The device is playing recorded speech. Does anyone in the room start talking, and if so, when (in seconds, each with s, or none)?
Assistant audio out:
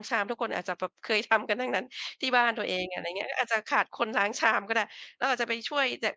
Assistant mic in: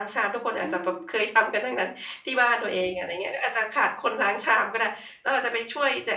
0.6 s